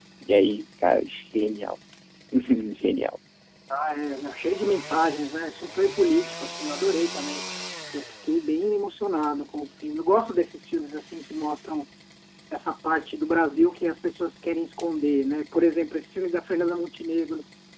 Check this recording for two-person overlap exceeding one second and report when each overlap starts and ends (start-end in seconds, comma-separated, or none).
none